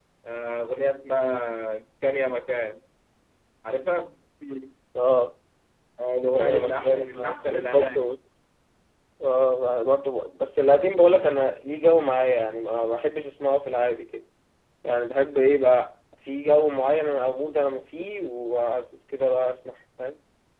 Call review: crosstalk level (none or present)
present